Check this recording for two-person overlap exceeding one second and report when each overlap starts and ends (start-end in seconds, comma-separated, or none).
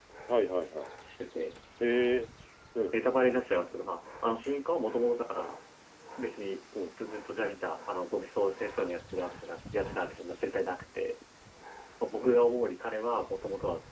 none